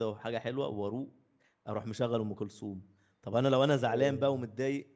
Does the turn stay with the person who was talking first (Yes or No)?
Yes